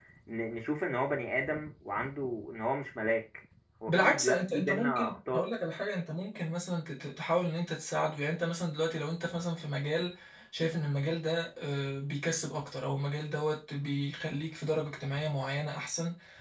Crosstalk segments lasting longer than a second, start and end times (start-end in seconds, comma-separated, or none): 3.9-5.5